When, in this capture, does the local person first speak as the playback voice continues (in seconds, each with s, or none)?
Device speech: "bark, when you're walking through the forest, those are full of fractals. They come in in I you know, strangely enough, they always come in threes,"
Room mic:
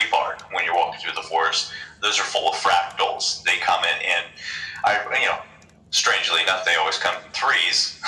none